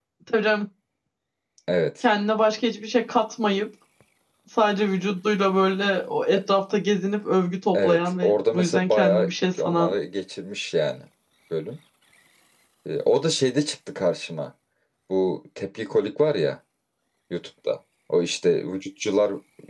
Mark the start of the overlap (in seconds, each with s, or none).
7.7 s